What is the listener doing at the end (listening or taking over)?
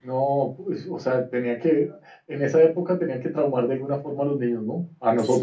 taking over